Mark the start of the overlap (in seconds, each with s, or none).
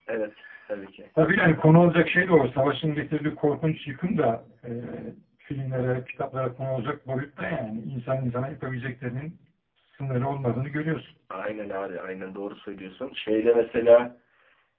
none